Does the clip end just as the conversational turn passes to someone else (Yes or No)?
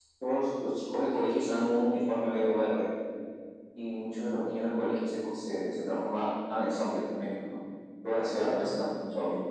No